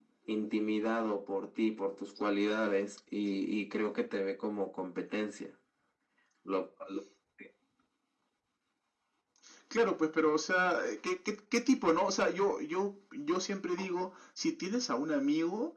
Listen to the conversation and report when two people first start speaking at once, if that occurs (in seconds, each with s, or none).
none